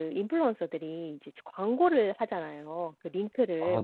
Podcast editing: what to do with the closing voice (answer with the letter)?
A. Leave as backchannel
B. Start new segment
A